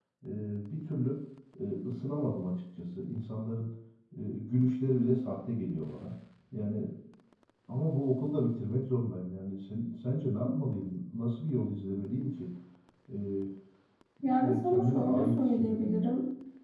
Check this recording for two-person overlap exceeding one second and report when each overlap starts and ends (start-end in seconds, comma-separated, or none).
14.4-16.0